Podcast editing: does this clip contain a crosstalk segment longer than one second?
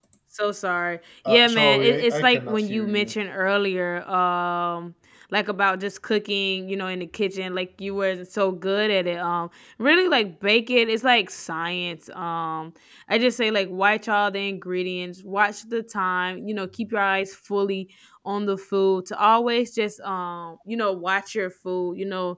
Yes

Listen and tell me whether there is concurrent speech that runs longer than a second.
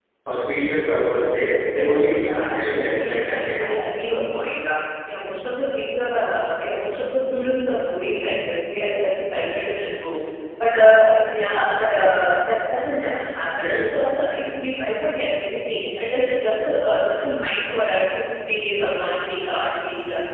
Yes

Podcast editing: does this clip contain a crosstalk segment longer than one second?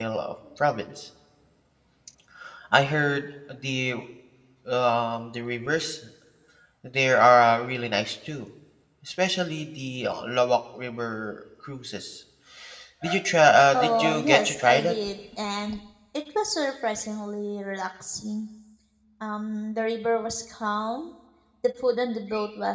Yes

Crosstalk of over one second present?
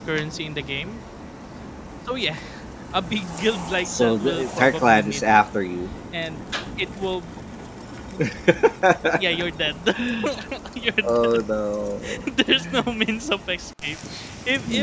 Yes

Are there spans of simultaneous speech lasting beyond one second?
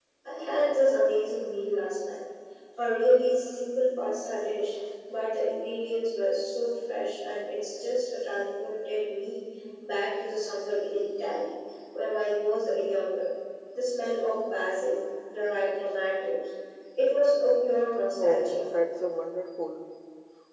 No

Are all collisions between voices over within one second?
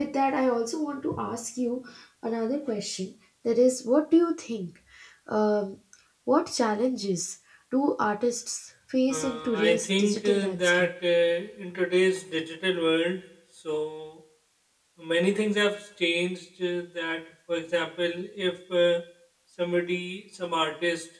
No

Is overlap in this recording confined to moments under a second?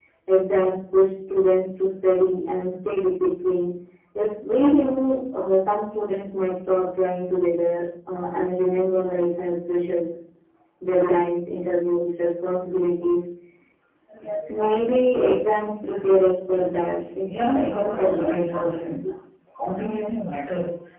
No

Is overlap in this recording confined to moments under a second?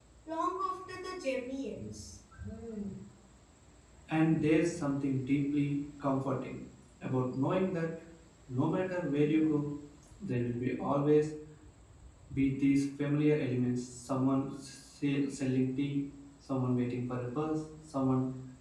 Yes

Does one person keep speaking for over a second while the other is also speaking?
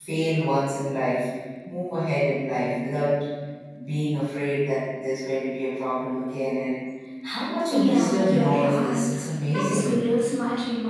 Yes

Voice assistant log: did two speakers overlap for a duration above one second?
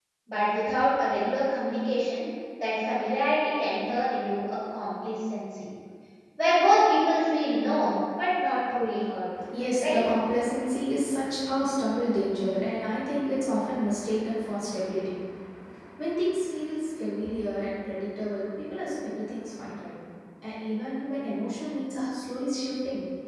No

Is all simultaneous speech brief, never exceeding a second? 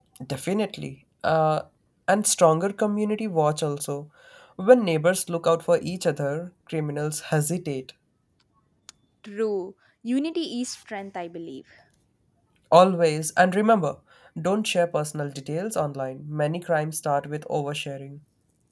Yes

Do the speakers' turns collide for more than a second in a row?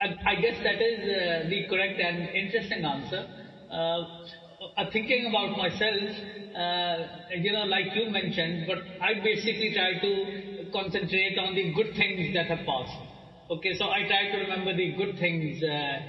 No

